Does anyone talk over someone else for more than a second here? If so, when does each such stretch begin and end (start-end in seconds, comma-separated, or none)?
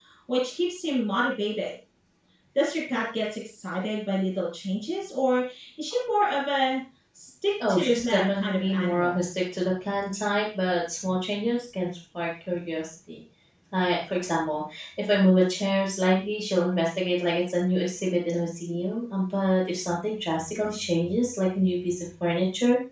7.7-9.2